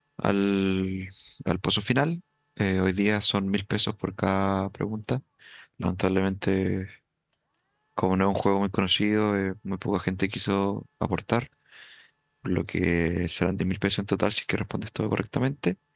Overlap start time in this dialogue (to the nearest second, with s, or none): none